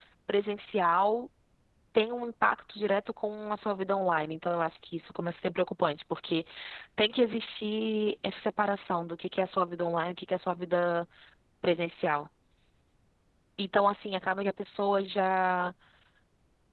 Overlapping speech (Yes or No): No